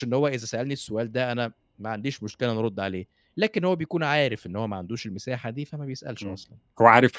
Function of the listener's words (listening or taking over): taking over